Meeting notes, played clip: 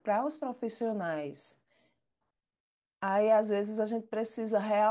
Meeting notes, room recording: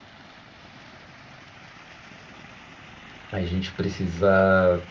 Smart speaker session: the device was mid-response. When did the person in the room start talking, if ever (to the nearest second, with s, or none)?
3 s